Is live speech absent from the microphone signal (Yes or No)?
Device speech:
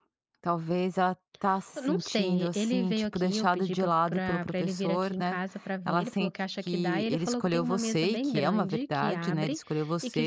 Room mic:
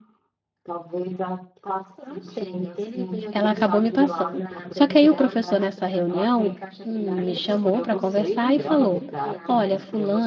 No